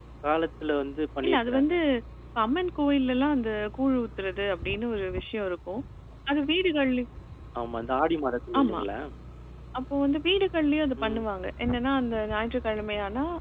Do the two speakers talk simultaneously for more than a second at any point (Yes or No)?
No